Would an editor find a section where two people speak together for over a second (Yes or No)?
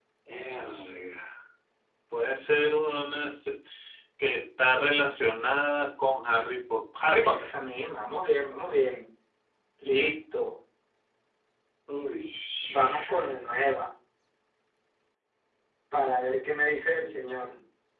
No